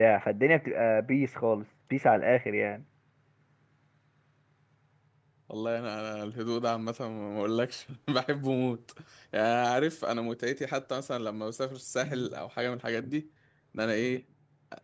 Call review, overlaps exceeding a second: none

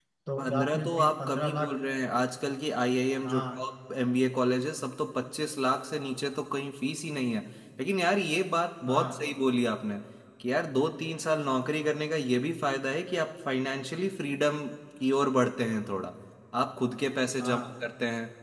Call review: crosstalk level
present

